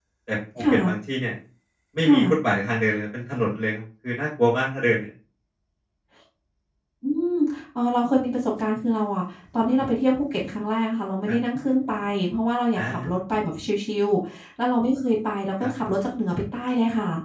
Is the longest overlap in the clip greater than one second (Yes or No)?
No